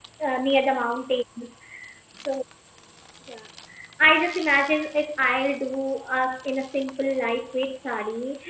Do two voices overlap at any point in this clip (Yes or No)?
No